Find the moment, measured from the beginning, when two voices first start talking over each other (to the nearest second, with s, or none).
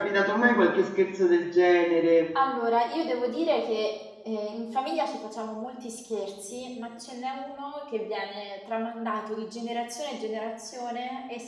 none